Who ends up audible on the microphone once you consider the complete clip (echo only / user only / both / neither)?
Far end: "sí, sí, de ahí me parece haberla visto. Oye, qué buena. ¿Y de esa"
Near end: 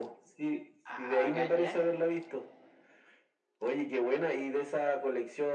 both